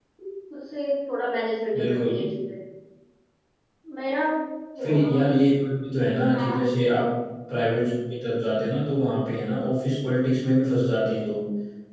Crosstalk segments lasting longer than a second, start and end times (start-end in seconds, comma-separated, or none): none